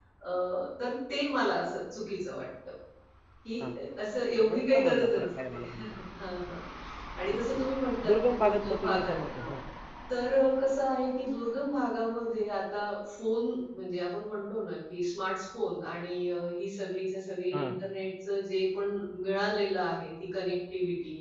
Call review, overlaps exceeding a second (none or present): present